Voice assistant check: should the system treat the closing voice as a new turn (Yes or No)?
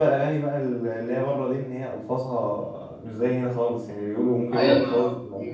Yes